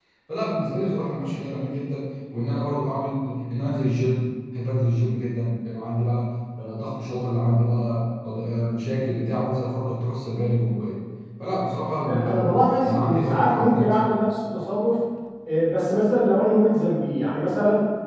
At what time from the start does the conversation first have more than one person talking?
12.0 s

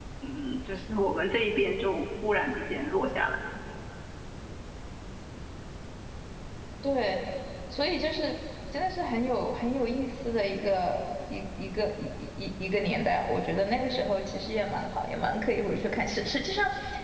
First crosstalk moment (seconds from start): none

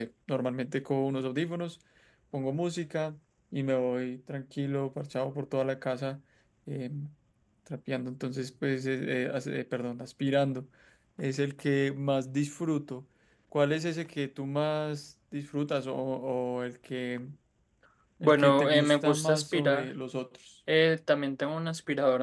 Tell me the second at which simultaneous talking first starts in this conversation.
18.2 s

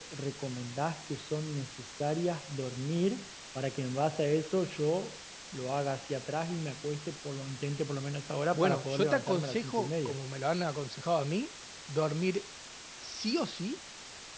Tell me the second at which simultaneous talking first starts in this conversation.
8.5 s

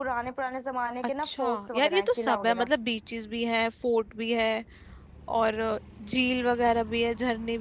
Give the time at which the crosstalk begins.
1.2 s

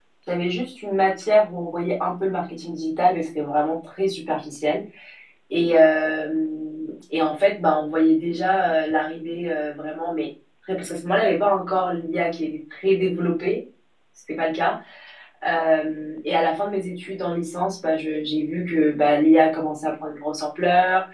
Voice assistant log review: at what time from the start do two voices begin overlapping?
none

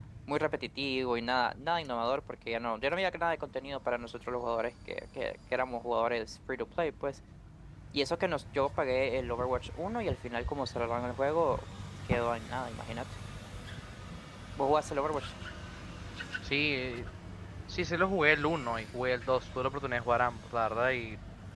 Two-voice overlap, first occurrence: none

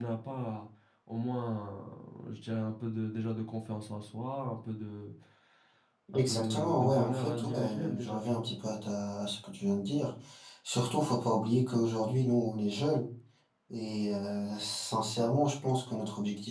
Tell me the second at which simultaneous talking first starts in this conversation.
6.1 s

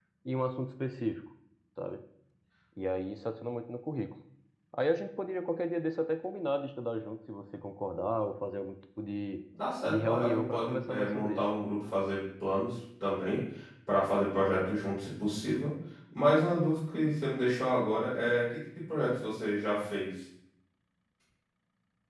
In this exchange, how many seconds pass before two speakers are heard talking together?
9.9 s

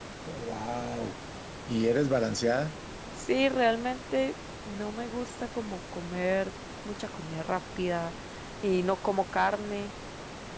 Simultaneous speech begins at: none

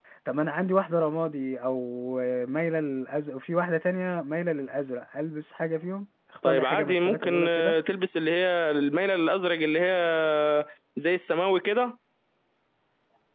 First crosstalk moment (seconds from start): 6.4 s

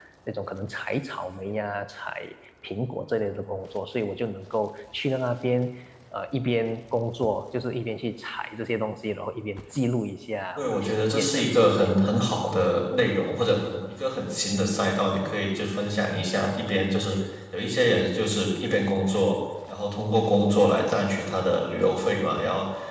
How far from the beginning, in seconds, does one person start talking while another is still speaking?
10.6 s

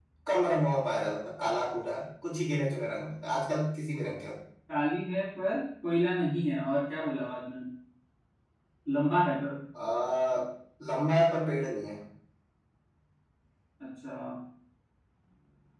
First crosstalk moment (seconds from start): none

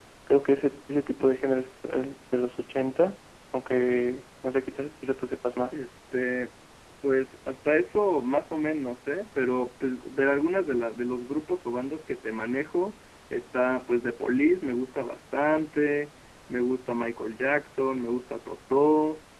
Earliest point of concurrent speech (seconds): none

